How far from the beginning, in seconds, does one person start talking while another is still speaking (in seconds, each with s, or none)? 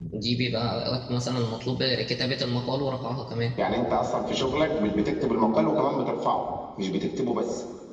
none